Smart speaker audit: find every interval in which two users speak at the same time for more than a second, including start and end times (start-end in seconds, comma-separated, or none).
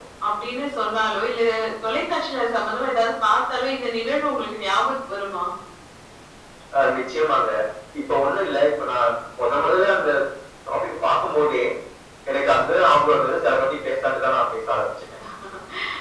none